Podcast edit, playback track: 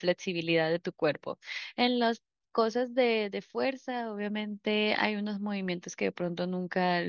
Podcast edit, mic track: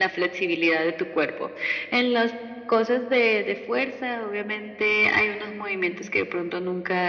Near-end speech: none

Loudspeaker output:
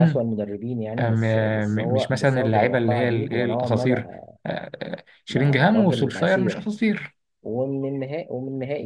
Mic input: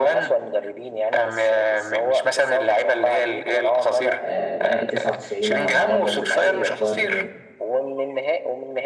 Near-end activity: present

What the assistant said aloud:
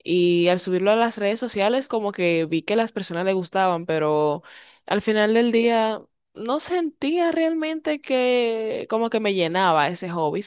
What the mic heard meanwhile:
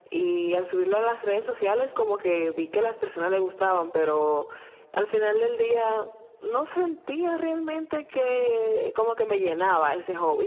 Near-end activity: none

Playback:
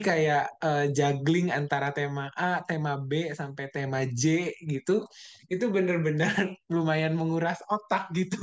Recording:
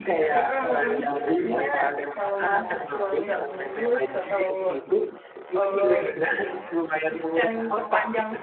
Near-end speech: present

